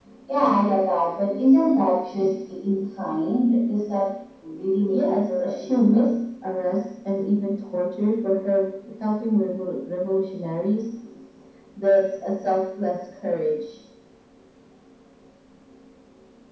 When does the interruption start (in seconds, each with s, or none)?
4.9 s